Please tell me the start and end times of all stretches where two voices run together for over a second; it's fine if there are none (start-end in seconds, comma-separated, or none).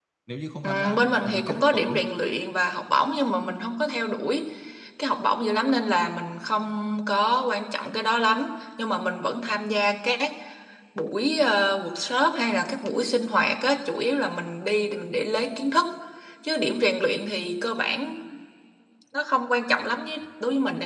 0.6-2.0